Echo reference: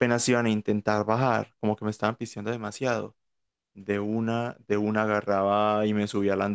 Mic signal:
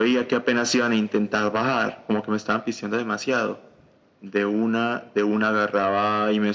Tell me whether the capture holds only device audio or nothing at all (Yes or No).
Yes